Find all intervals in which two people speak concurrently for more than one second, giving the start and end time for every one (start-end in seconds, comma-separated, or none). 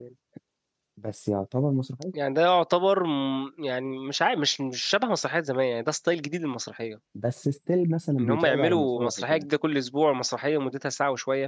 8.2-9.4